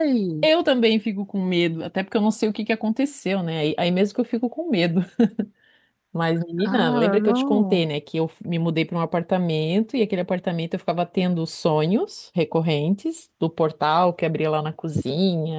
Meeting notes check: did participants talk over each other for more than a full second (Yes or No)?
Yes